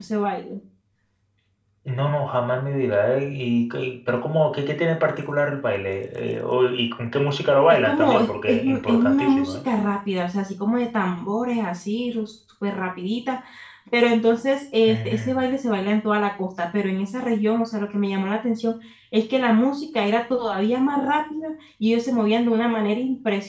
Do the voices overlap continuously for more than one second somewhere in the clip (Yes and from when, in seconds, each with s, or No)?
Yes, from 7.8 s